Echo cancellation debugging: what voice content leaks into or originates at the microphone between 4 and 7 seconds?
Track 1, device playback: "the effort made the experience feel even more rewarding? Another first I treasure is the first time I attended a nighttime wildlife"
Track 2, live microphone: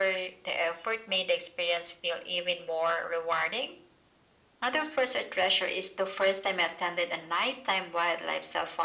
echo only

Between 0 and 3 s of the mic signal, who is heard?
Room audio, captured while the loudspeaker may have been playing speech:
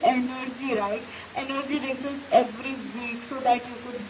echo only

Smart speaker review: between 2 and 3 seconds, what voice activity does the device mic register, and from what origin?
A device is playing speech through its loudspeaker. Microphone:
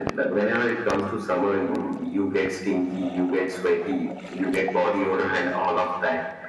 echo only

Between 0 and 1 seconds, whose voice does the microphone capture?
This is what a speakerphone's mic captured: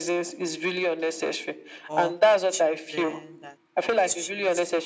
echo only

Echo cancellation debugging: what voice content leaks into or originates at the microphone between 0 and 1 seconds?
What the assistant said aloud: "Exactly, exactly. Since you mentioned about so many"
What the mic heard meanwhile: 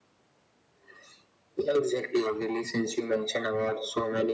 neither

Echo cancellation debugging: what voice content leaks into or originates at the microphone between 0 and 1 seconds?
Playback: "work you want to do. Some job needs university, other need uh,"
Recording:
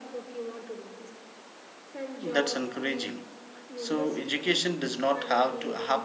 echo only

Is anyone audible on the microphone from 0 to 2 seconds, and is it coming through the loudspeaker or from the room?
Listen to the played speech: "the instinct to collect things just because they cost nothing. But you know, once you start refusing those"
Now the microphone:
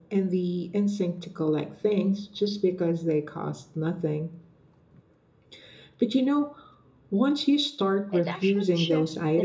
echo only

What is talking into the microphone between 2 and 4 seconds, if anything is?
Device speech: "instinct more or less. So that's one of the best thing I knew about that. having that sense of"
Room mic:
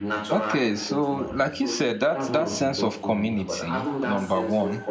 both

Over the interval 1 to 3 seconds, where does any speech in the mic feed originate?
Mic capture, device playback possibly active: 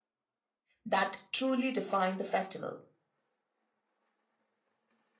user only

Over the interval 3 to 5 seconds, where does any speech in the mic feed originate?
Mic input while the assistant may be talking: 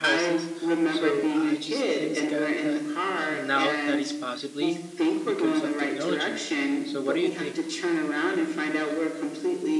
both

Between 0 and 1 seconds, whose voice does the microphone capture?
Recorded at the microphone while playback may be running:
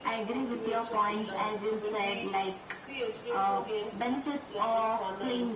echo only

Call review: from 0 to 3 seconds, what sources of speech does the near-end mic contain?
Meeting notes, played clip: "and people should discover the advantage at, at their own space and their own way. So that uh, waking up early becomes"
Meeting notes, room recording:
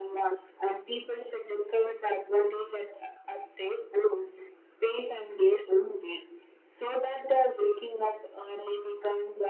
echo only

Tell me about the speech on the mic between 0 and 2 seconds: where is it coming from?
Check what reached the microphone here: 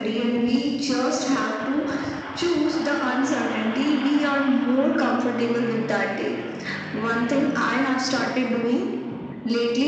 echo only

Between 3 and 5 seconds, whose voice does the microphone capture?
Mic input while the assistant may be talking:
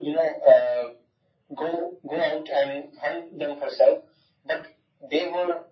echo only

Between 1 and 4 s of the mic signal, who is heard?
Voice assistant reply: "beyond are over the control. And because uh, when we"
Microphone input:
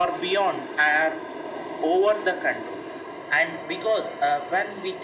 echo only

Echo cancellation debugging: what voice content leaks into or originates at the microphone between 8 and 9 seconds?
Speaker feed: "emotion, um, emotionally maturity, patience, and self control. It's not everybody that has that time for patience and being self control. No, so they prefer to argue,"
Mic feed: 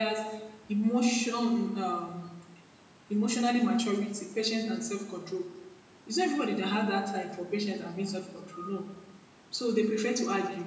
echo only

